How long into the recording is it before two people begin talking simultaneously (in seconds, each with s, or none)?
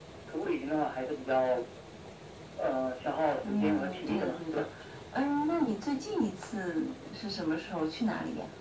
3.4 s